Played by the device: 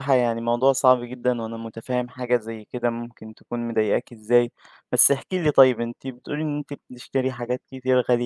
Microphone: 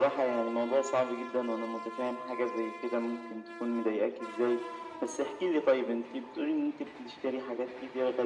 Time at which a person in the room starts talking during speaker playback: none

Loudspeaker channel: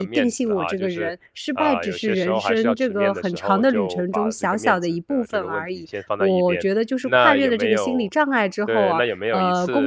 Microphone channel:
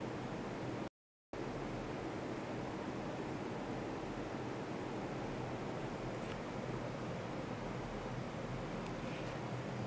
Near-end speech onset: none

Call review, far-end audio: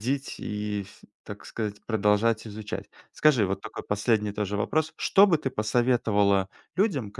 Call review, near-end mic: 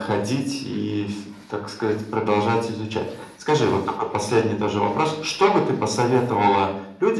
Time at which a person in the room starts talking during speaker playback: none

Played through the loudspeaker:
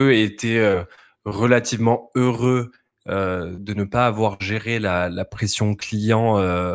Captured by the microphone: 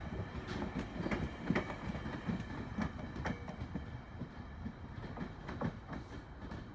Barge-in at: none

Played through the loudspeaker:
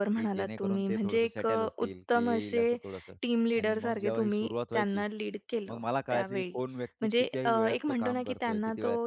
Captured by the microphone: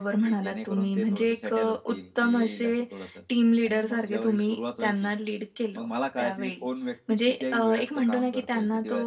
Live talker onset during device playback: none

